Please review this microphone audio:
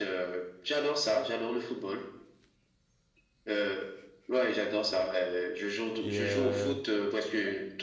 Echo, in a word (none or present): present